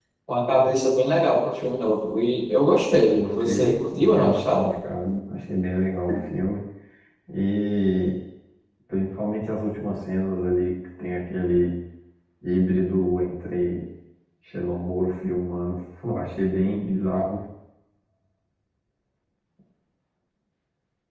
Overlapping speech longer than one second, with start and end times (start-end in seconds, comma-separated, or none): 3.1-4.7